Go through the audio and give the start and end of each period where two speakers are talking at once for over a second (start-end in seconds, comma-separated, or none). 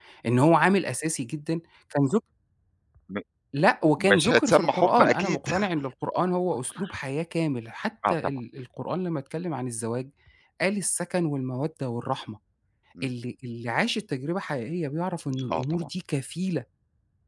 4.0-5.5